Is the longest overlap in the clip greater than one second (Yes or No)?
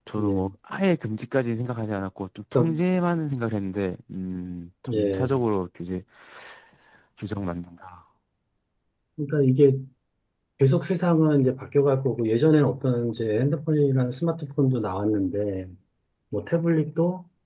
No